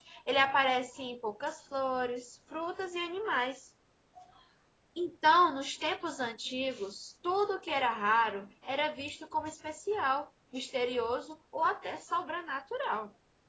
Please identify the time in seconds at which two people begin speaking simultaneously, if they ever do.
none

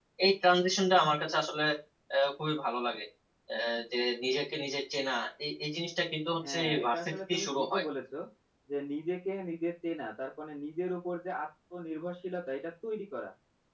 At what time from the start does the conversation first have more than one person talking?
6.4 s

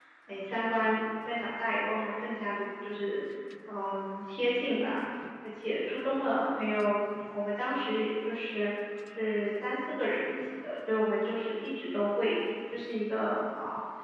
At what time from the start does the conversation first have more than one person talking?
none

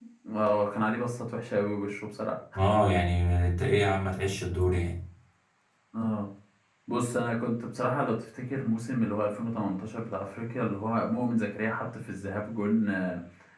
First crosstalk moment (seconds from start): none

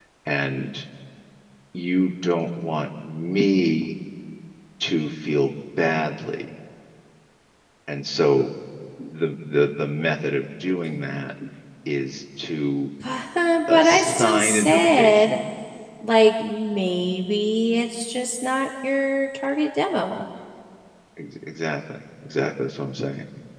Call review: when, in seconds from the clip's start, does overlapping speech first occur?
13.7 s

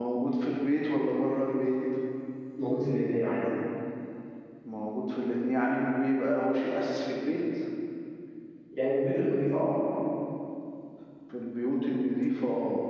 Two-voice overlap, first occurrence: none

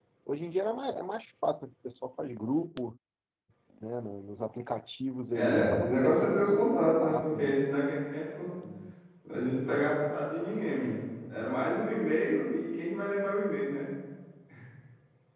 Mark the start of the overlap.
5.3 s

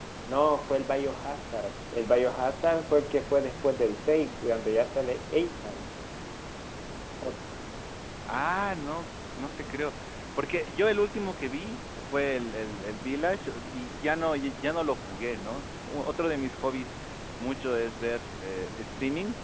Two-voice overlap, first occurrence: none

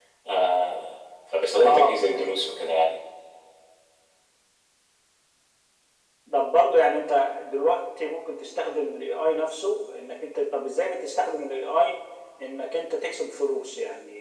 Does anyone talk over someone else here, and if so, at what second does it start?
1.6 s

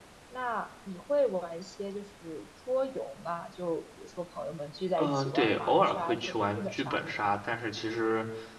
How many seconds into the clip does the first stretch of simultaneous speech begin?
5.0 s

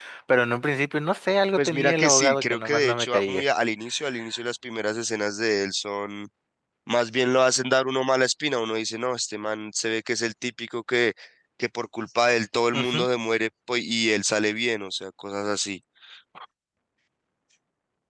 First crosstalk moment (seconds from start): 1.6 s

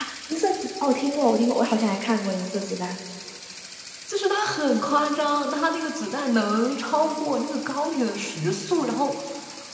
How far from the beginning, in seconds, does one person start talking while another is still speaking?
none

